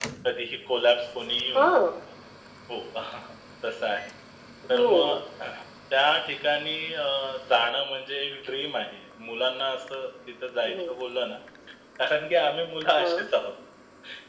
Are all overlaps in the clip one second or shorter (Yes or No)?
Yes